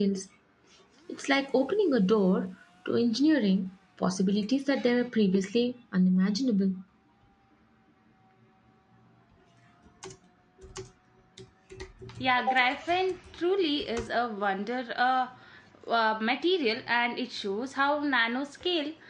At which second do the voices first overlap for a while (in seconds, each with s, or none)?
none